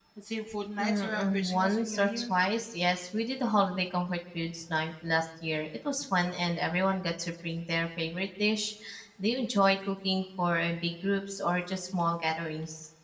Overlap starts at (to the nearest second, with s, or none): 1 s